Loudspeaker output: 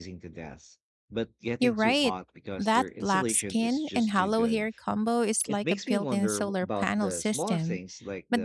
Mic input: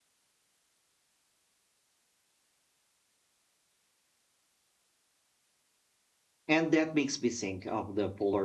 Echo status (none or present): none